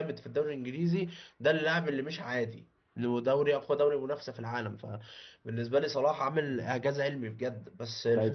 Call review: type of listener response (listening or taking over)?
taking over